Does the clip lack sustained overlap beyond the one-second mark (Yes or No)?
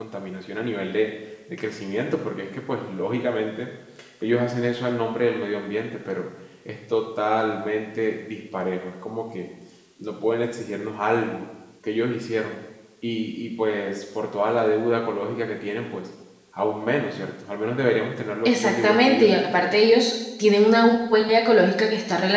No